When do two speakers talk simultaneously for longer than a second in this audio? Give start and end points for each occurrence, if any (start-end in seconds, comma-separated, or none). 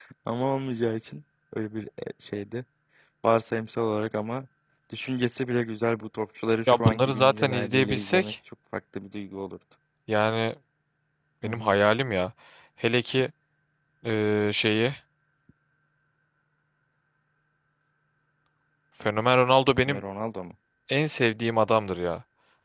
6.7-8.3